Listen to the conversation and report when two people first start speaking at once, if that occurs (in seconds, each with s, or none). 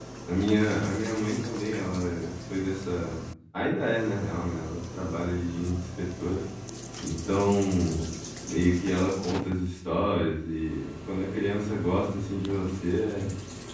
none